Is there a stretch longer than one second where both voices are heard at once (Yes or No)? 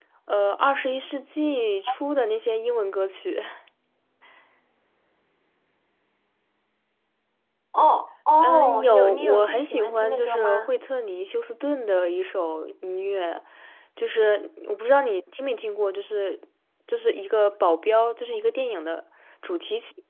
Yes